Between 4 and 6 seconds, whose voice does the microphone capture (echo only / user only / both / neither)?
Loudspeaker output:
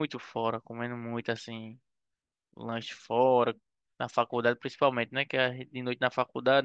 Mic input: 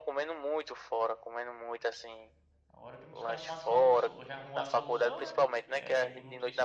both